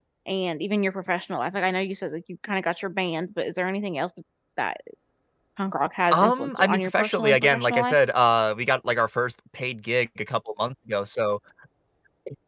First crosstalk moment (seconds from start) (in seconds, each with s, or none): 6.1 s